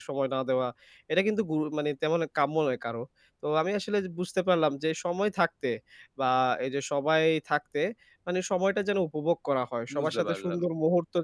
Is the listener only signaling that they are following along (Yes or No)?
Yes